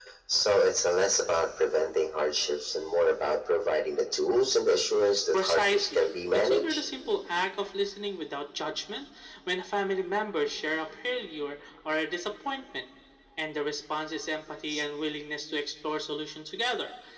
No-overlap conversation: No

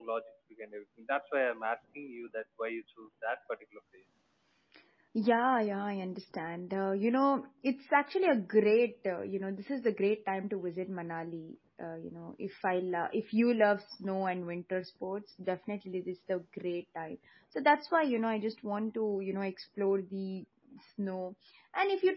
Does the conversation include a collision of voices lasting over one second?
No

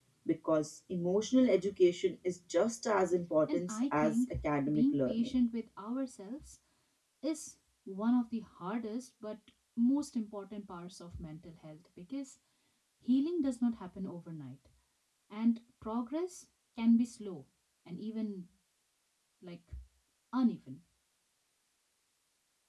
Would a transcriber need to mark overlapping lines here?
Yes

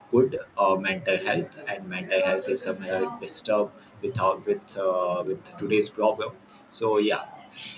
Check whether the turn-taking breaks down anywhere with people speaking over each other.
No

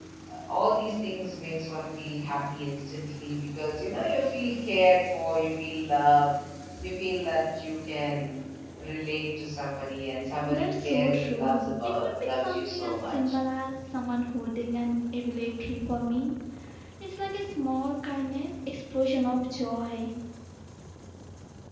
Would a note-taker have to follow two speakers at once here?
Yes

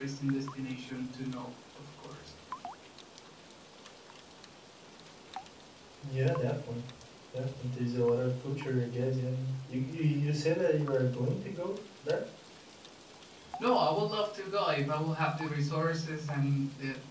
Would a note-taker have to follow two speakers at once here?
No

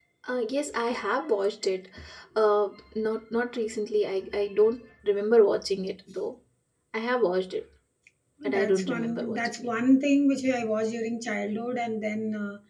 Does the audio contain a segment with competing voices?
Yes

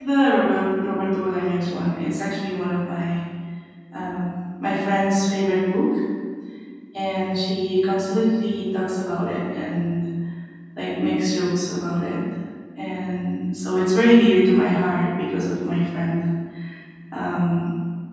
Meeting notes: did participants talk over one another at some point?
No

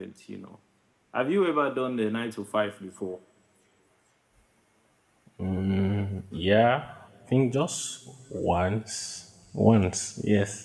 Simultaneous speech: No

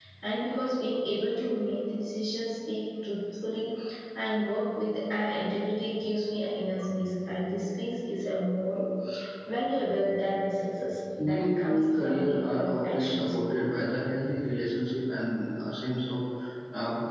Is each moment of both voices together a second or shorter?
No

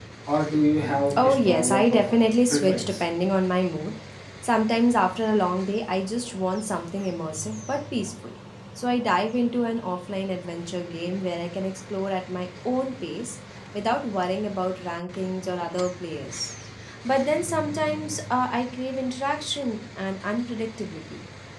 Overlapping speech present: Yes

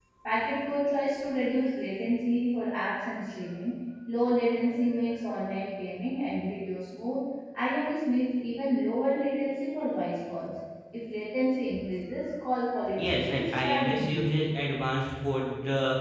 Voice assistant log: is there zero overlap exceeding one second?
No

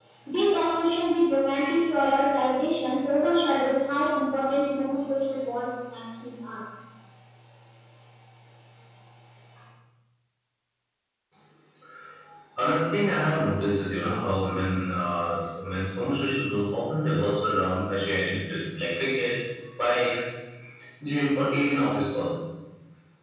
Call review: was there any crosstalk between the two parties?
No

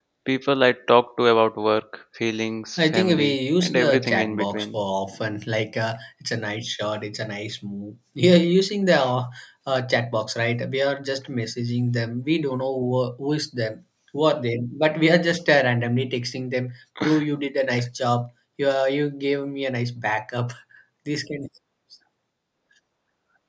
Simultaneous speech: Yes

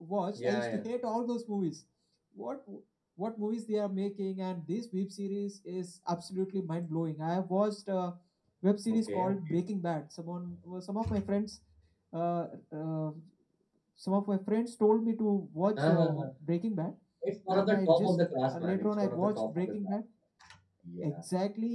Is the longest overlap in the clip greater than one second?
Yes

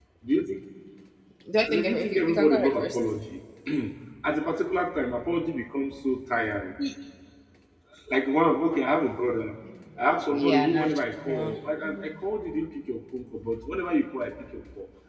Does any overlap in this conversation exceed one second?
Yes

